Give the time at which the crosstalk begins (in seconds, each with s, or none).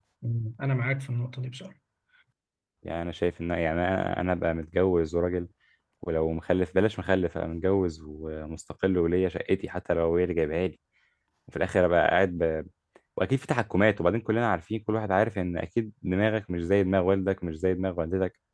none